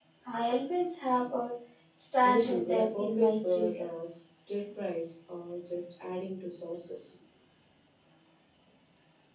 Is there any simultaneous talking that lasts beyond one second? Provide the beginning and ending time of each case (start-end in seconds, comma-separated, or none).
2.2-3.9